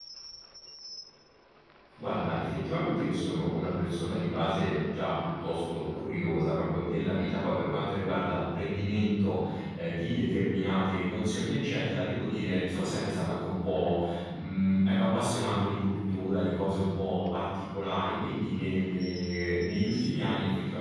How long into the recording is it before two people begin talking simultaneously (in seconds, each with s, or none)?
none